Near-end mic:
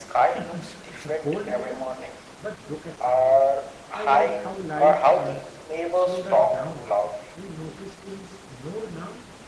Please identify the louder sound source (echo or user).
echo